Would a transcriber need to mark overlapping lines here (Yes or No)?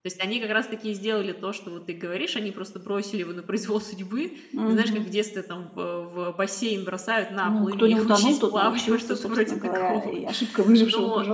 Yes